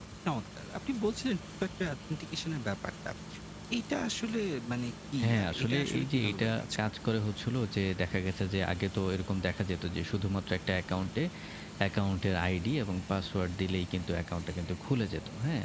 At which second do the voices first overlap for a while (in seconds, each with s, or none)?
5.2 s